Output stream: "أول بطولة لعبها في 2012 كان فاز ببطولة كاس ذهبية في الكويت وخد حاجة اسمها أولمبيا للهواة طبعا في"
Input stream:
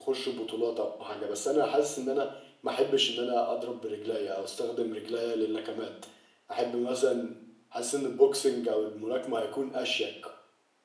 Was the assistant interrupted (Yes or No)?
Yes